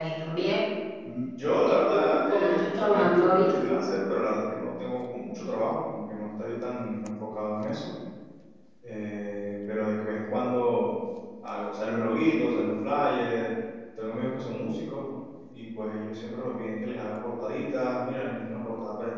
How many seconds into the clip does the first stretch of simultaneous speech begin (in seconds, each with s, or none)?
1.9 s